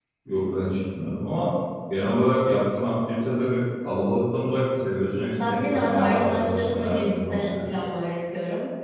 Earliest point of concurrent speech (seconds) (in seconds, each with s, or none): 5.3 s